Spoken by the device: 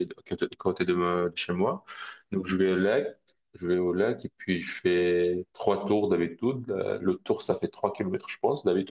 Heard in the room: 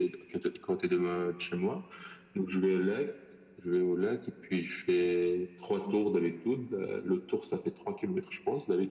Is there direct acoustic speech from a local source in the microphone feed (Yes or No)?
No